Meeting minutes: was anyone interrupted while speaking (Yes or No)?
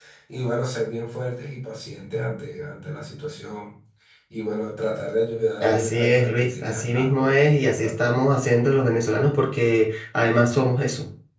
Yes